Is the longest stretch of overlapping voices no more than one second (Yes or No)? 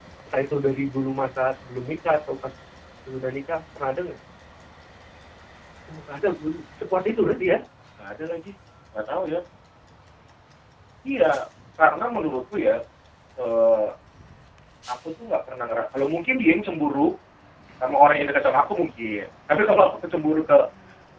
Yes